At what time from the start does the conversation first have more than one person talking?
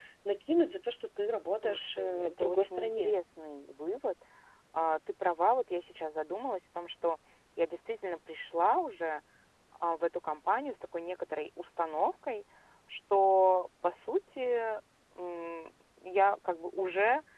1.6 s

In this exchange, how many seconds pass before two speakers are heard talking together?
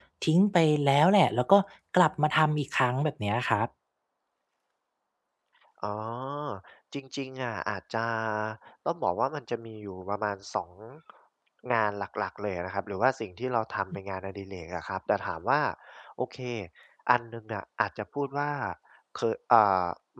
none

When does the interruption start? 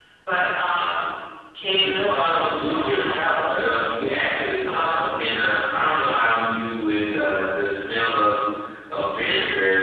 1.8 s

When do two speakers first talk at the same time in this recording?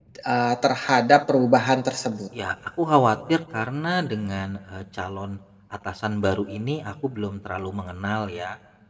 none

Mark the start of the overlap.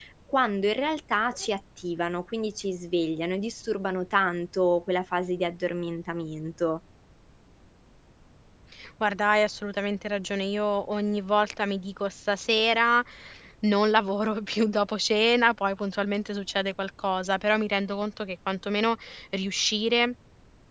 none

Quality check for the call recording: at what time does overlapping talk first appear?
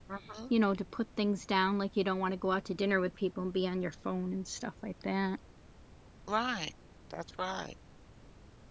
none

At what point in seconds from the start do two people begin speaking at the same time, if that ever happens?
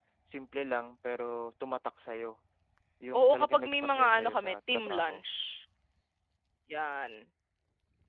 3.2 s

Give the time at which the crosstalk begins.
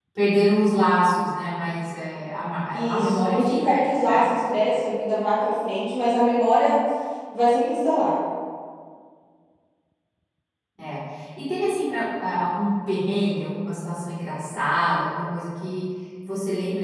2.7 s

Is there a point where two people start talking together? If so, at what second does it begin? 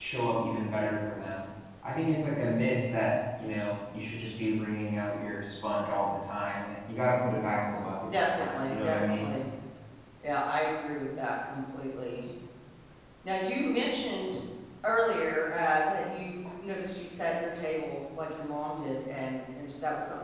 8.0 s

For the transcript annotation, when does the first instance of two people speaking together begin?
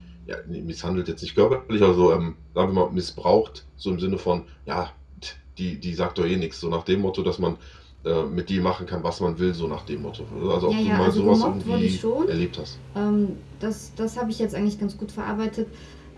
10.7 s

